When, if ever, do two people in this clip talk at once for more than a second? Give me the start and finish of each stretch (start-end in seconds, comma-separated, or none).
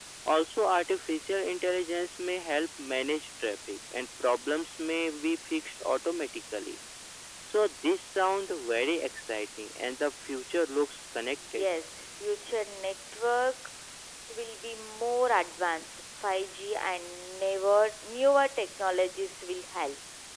none